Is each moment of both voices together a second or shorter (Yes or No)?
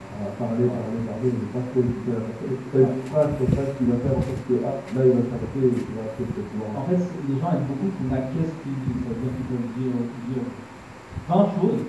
Yes